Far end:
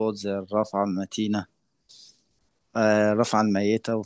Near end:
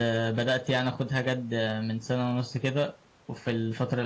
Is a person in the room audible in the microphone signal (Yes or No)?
Yes